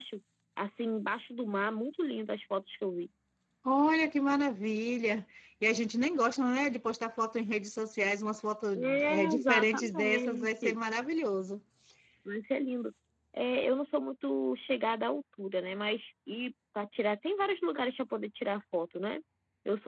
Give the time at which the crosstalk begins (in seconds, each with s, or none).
8.7 s